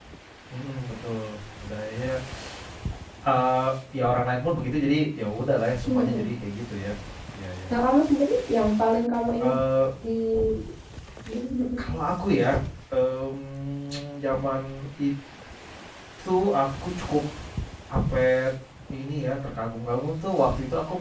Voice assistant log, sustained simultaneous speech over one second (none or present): none